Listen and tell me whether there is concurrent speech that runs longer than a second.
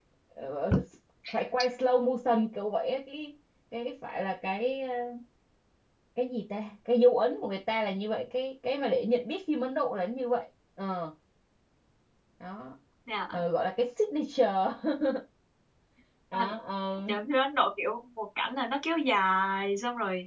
No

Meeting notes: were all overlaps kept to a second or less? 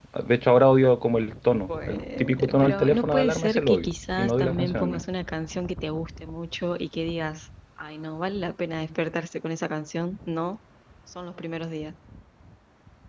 No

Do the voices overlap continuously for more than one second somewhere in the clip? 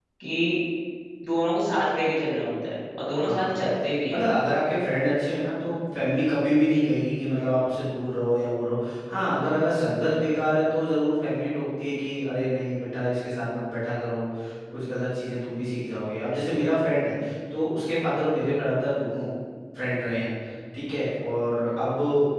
No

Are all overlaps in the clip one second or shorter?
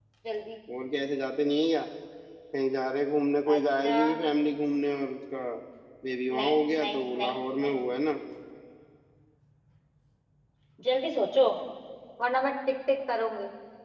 No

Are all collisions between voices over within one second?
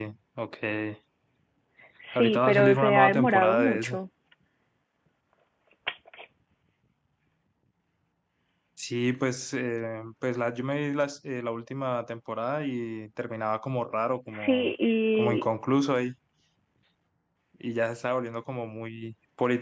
No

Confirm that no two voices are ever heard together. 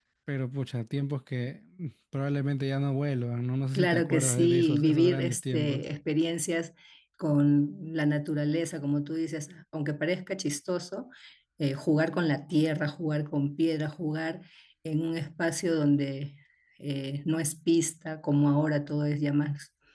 No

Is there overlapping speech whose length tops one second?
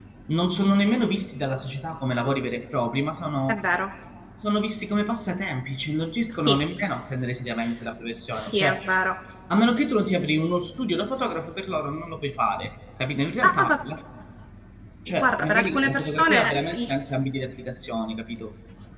Yes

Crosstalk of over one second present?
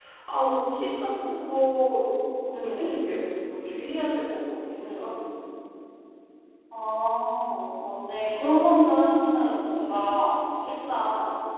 No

